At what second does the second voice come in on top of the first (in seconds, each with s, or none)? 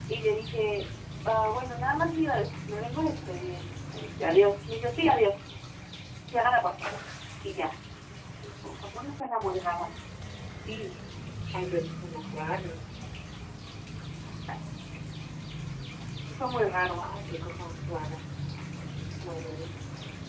none